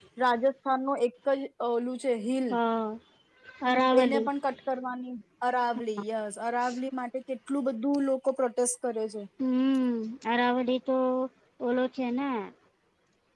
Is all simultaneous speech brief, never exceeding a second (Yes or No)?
Yes